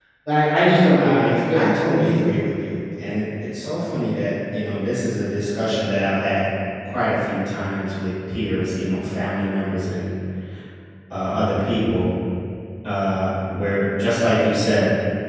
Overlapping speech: Yes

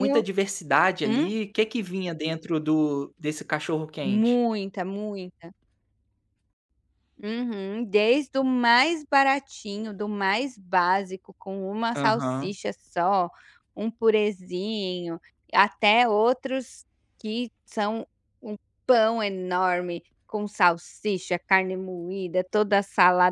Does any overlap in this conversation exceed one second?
No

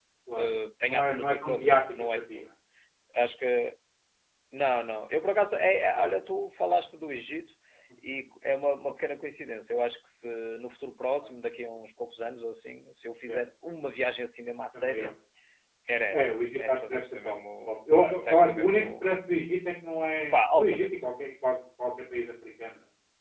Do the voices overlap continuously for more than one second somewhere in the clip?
Yes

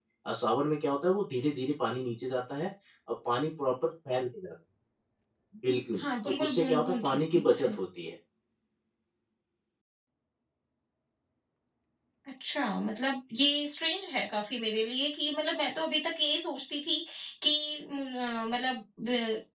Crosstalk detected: Yes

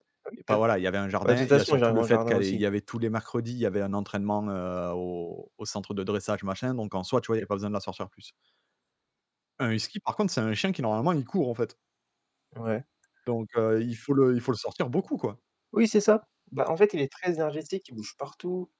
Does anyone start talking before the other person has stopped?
Yes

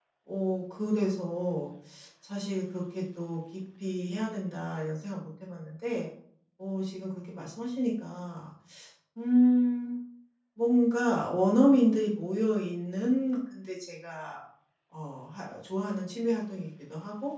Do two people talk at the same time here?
No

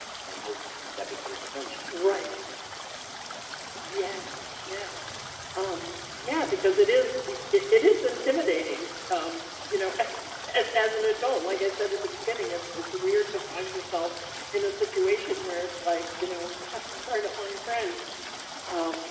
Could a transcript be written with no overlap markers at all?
Yes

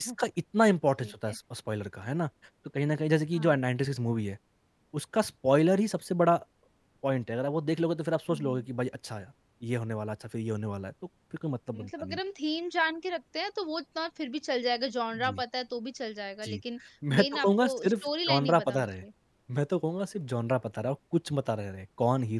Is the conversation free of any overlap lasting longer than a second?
No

